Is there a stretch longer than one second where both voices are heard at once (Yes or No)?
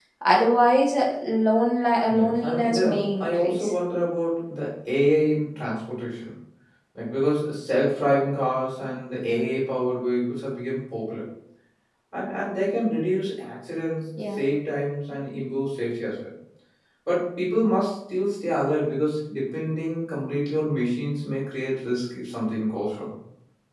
Yes